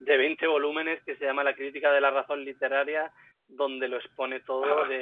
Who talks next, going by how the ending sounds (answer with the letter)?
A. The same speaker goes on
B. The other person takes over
B